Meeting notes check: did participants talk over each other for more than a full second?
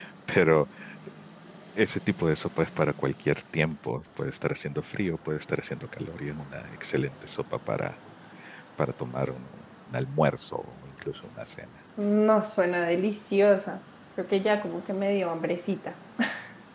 No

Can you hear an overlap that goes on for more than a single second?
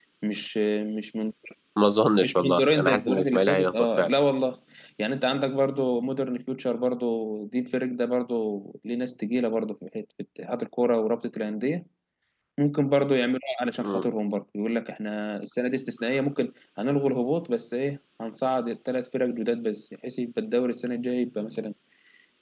Yes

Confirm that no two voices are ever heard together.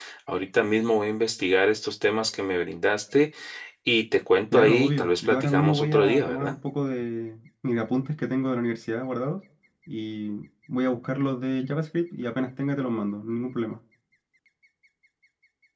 No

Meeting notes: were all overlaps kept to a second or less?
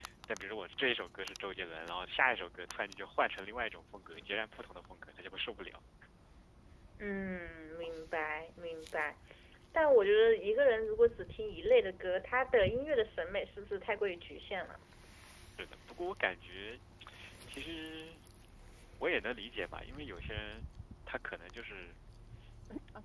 Yes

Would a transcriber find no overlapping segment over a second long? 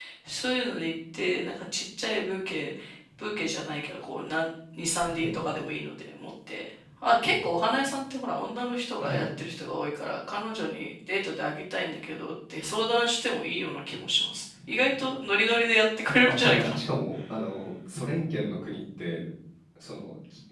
Yes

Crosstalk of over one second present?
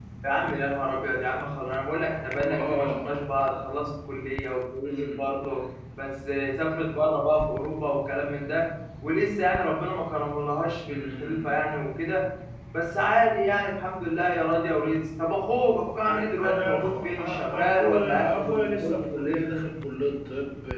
Yes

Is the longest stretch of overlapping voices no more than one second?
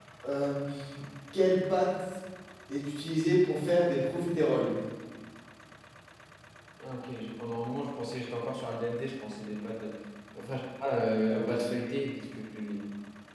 Yes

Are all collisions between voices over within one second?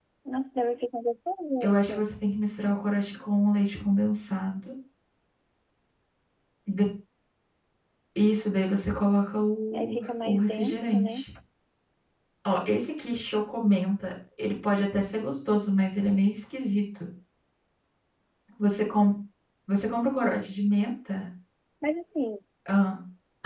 No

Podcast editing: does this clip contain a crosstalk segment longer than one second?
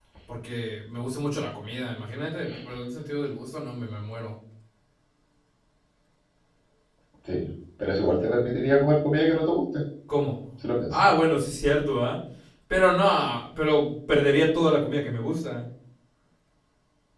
No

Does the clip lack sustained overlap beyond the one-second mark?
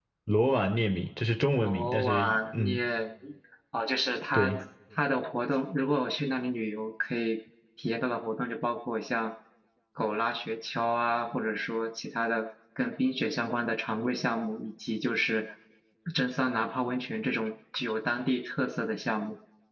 No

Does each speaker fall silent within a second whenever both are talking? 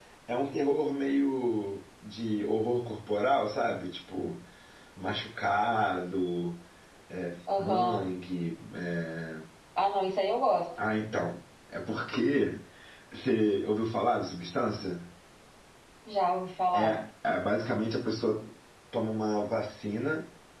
Yes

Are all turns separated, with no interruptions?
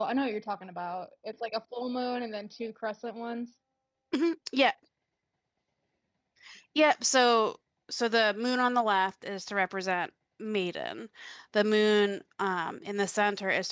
Yes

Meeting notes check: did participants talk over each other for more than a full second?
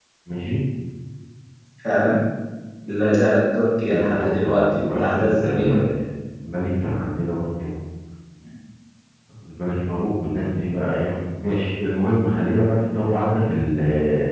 Yes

